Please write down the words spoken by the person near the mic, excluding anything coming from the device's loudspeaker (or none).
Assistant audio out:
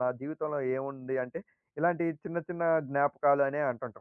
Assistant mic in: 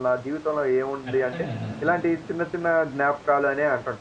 ఖచ్చితంగా అండి అసల.